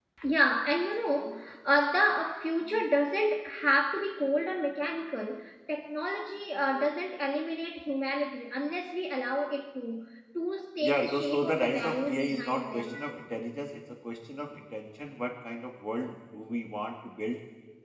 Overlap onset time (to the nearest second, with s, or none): 11 s